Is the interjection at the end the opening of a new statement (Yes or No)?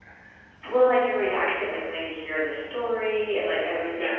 No